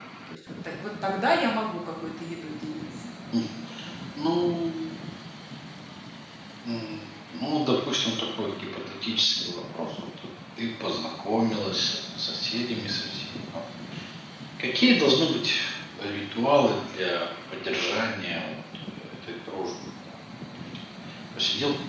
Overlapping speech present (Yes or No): No